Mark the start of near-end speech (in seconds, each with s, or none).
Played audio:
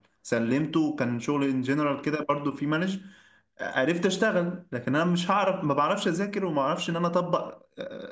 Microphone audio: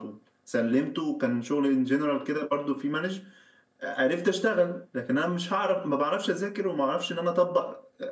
none